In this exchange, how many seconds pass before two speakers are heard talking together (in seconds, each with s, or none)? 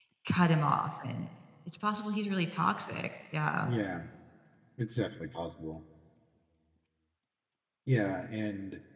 none